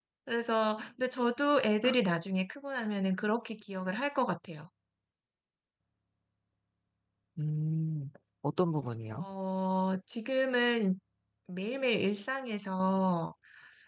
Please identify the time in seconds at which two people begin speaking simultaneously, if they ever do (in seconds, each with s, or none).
none